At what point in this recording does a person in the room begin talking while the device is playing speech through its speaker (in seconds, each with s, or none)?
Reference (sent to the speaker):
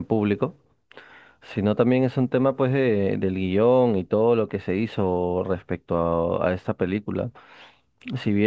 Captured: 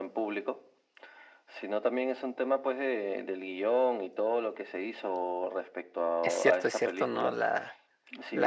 6.2 s